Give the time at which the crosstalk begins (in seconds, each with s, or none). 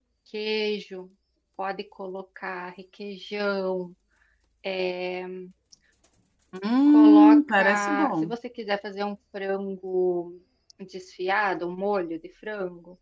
6.9 s